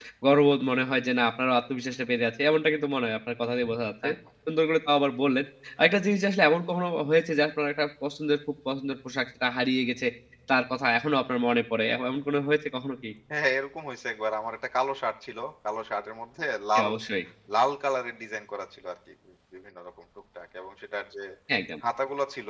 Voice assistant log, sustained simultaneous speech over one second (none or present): none